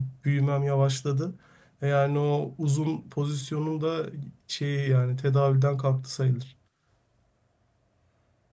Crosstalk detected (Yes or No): No